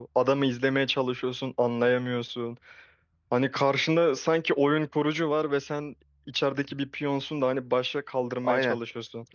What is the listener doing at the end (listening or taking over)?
taking over